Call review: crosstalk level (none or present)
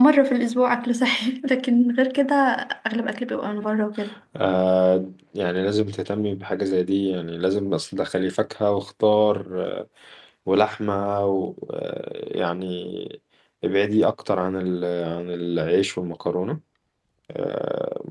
none